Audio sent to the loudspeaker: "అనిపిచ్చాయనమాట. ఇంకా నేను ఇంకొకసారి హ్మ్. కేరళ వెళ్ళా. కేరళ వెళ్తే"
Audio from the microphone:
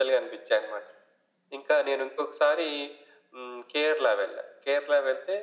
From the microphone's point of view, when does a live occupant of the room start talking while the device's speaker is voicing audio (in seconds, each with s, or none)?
none